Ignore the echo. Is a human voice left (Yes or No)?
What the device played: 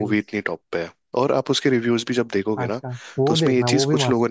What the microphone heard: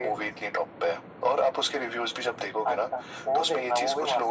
No